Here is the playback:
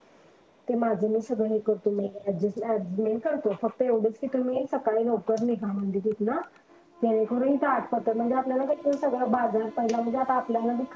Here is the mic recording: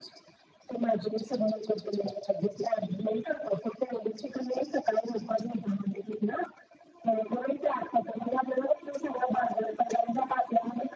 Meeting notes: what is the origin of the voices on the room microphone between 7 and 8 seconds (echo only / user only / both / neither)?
echo only